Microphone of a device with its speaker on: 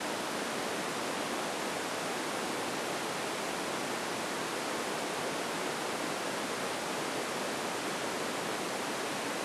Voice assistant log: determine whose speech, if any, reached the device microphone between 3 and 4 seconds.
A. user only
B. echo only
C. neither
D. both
C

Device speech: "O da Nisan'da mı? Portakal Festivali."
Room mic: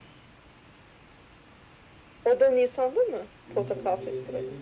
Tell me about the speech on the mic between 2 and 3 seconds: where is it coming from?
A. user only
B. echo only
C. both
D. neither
B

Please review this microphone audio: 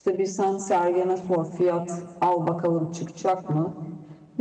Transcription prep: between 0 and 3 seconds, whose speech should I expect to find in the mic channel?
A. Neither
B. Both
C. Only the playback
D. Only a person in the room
D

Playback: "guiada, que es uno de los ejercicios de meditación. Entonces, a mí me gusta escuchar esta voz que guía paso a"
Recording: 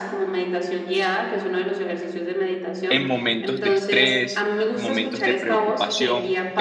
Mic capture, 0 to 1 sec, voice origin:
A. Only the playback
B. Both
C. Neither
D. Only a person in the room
A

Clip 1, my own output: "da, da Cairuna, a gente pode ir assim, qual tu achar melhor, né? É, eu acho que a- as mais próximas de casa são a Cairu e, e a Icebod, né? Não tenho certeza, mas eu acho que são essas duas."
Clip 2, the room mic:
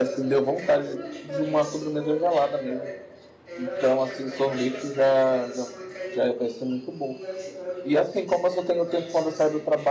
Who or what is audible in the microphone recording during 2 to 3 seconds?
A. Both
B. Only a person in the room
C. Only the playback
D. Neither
A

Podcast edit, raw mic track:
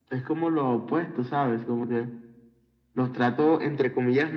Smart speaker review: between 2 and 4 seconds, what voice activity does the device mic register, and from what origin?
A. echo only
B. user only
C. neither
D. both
A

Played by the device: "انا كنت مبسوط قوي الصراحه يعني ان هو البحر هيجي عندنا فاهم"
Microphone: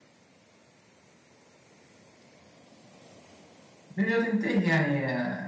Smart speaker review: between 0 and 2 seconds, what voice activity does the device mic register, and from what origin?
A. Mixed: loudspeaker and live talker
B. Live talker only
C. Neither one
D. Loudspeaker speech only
C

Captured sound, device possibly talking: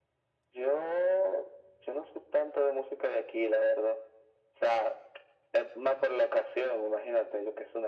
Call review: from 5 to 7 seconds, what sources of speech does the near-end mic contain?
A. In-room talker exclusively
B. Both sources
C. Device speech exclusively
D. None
C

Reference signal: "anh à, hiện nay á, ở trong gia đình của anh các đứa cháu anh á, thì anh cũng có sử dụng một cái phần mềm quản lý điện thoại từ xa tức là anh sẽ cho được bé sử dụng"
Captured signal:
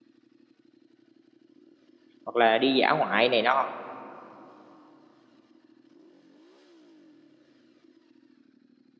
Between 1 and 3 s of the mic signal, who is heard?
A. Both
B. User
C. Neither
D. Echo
B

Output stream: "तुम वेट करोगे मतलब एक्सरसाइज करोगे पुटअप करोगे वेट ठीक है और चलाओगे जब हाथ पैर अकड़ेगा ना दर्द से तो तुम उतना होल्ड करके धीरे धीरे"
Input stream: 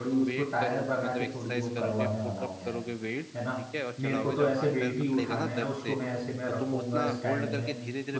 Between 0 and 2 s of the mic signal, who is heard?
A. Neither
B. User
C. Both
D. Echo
C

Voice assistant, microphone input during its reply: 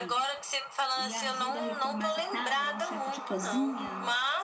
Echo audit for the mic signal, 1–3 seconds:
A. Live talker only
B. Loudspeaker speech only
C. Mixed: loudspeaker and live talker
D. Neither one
C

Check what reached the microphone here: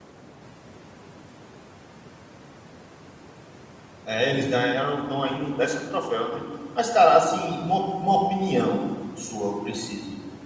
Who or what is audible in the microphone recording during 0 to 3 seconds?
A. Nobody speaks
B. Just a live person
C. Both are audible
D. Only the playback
A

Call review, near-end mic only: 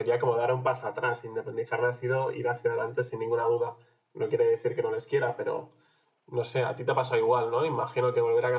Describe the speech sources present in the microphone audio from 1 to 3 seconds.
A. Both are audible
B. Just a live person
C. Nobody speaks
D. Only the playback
B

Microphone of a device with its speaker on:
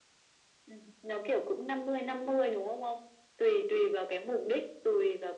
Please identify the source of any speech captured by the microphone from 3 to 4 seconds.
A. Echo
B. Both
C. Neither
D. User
A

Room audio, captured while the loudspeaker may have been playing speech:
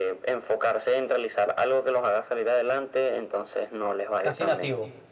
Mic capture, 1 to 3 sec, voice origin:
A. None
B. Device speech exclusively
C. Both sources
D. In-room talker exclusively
B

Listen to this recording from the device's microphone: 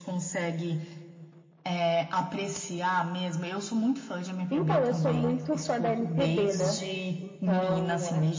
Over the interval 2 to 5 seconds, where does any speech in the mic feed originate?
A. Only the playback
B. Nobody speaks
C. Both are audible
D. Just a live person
A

